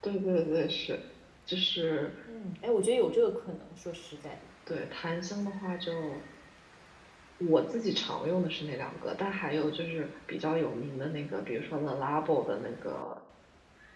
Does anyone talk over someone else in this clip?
No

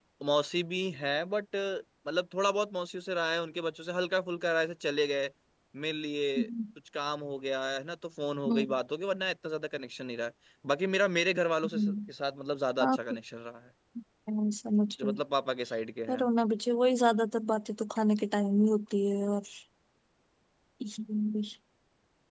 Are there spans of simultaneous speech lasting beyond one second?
No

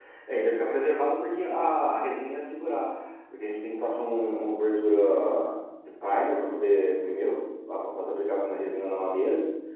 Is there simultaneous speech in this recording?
No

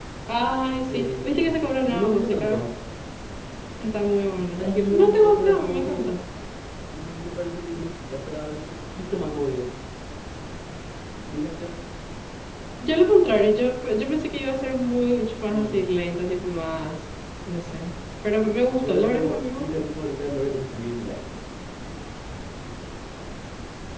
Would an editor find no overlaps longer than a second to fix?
No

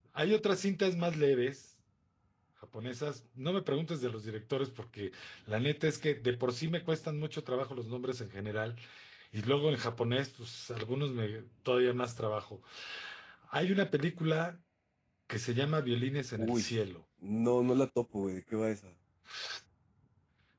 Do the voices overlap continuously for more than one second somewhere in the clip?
No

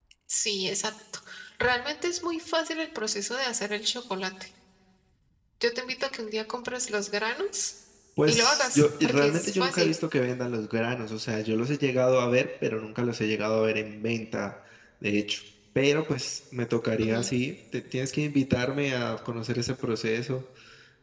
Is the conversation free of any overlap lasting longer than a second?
No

